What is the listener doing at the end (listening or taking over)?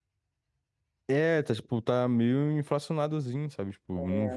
taking over